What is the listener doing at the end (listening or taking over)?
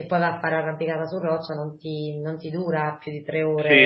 taking over